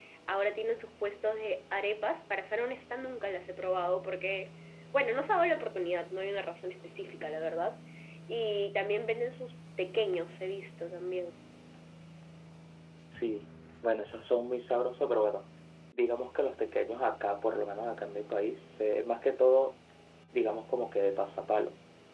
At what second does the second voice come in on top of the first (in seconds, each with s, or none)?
none